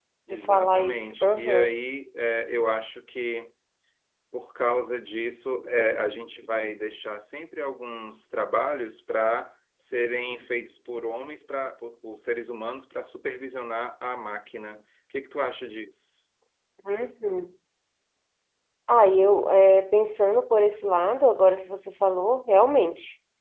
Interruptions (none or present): present